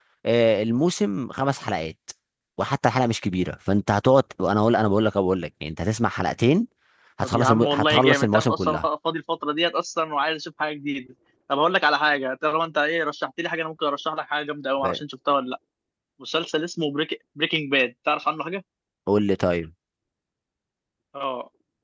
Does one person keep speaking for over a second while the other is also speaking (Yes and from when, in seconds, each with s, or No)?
Yes, from 7.2 s